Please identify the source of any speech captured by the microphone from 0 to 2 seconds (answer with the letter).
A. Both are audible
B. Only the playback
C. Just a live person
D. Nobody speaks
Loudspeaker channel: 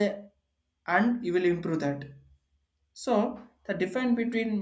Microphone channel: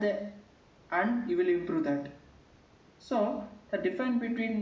B